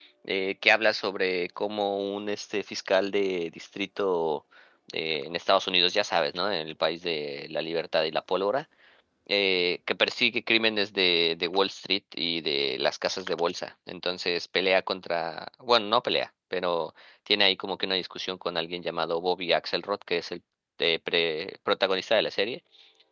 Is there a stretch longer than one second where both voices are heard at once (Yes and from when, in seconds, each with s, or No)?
No